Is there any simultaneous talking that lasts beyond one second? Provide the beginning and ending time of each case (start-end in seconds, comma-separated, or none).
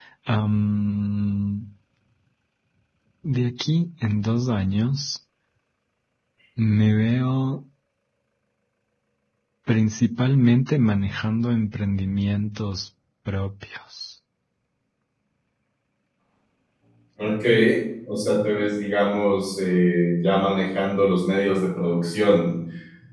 none